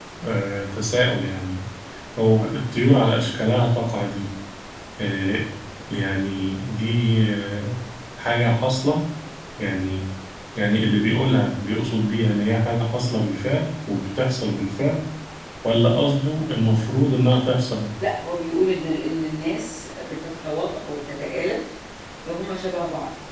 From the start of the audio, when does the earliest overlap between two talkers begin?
none

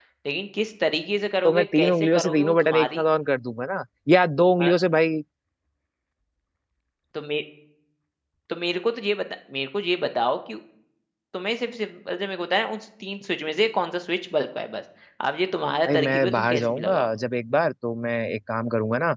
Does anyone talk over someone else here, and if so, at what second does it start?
1.4 s

